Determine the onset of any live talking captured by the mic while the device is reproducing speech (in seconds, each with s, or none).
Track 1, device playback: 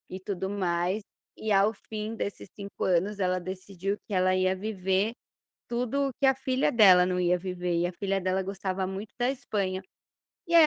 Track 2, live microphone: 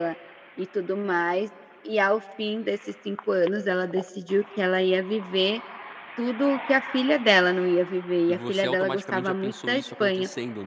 8.3 s